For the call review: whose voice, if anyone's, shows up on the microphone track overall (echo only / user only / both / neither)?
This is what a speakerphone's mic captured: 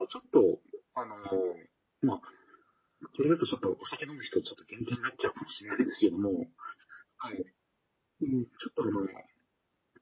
echo only